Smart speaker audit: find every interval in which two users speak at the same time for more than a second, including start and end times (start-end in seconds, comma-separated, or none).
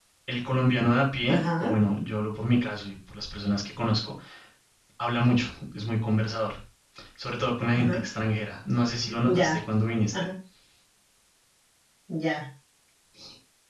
none